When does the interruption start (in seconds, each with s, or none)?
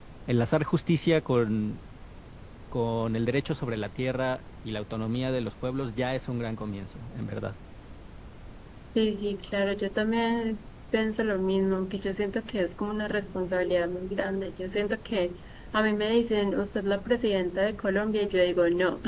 none